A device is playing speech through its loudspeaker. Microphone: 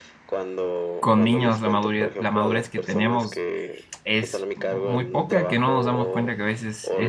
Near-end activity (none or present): present